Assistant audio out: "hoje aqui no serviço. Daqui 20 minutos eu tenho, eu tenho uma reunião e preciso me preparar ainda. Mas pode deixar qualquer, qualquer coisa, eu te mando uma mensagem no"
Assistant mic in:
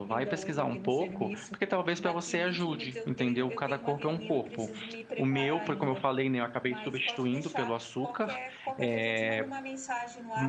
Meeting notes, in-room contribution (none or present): present